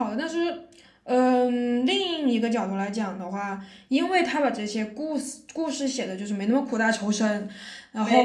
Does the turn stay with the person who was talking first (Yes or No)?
Yes